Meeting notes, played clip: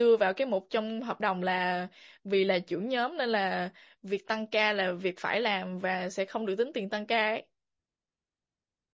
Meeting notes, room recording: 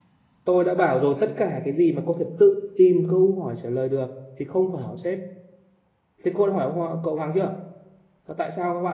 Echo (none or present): none